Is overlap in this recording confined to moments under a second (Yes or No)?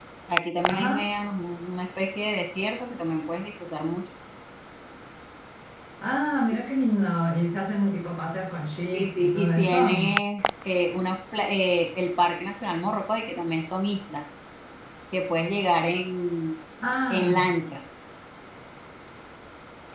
No